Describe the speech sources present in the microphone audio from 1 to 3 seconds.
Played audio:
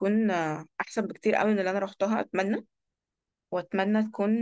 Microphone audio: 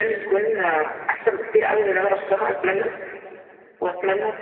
echo only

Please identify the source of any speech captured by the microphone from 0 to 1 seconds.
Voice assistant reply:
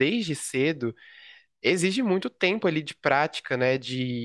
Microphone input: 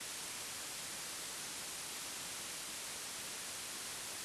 neither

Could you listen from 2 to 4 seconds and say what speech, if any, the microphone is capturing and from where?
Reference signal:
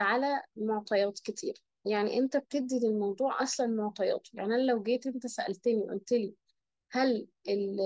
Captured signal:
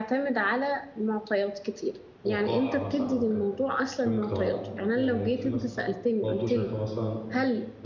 both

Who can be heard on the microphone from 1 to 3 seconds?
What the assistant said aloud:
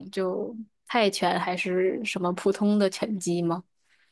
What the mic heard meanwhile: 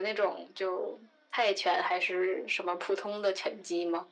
echo only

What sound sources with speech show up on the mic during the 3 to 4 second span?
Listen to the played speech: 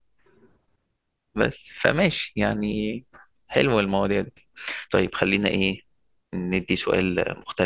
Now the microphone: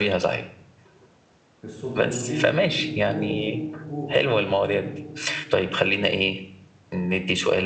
both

